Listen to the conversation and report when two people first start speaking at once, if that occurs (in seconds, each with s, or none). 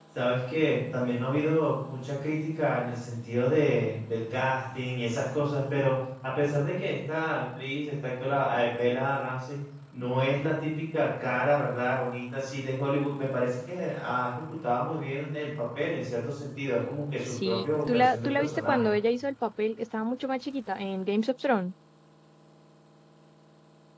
17.3 s